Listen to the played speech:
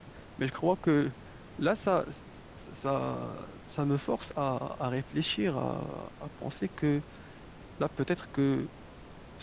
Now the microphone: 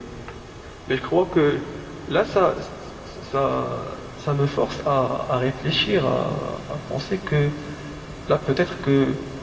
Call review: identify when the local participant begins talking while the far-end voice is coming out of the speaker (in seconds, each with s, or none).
none